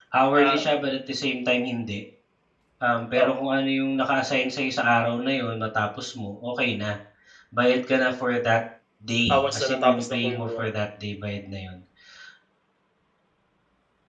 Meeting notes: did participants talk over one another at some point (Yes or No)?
Yes